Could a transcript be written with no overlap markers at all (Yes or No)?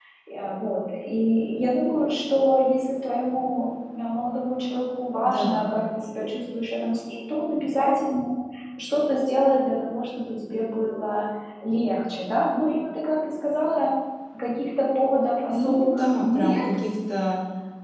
No